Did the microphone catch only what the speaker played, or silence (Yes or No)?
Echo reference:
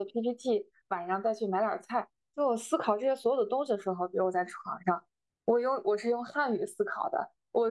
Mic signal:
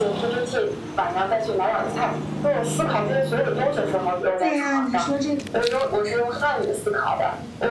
No